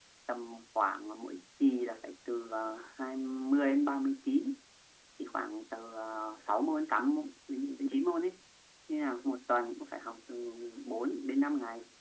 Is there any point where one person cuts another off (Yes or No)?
No